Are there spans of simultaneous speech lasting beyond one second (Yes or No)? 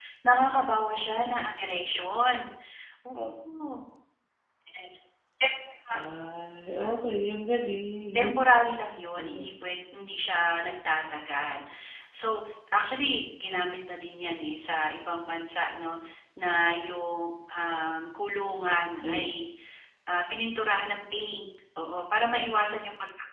No